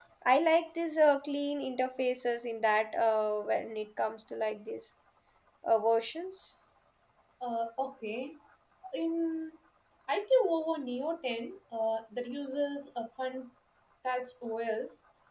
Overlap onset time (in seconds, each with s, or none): none